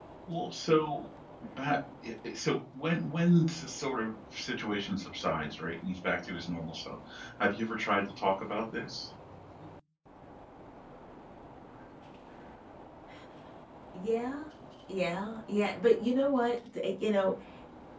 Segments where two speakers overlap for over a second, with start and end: none

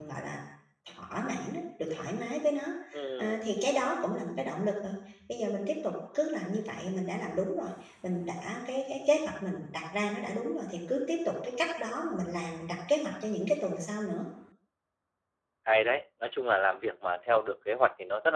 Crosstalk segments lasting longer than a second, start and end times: none

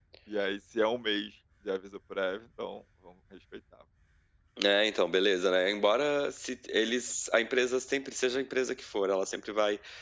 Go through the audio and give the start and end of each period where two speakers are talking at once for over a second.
none

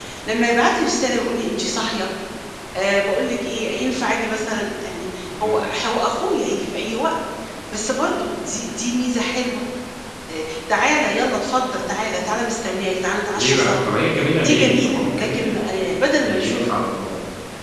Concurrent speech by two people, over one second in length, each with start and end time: 14.4-15.6

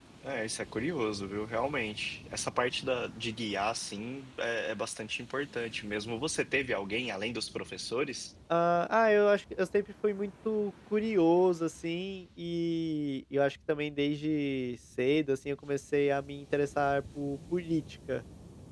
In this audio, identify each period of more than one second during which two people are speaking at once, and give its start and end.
none

